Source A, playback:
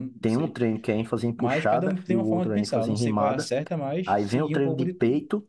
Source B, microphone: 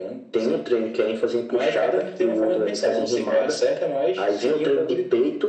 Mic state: echo only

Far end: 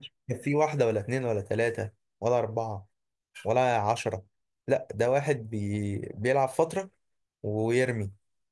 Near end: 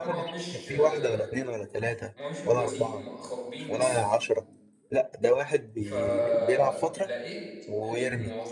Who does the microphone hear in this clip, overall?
both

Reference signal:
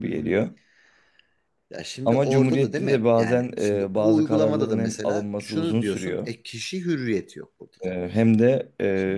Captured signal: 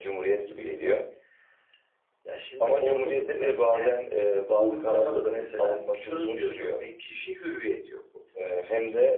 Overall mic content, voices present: echo only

